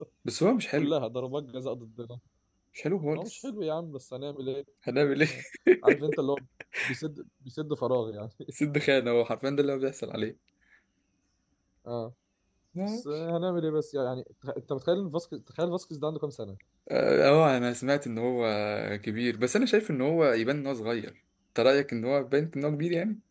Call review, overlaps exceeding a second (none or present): none